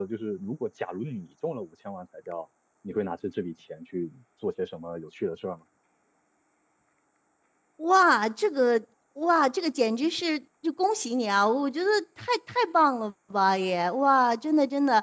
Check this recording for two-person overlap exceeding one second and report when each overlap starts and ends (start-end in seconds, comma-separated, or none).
none